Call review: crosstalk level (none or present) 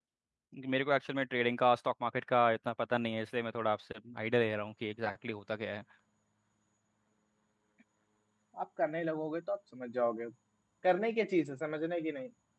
none